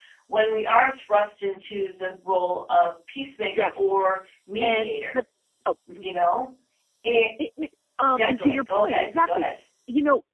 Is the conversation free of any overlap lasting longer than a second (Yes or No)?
No